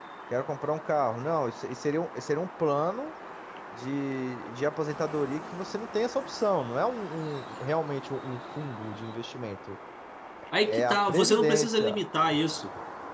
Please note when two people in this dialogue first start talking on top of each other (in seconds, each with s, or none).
10.7 s